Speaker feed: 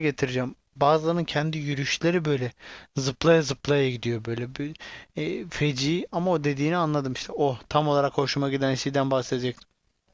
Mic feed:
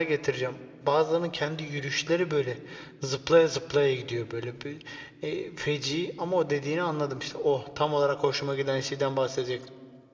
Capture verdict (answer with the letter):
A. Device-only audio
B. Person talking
A